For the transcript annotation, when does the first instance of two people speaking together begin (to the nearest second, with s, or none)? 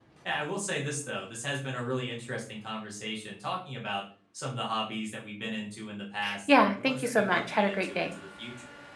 6 s